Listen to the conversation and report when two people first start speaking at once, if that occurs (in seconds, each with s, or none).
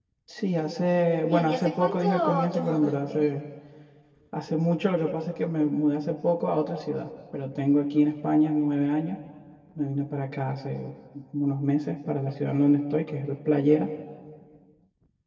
1.3 s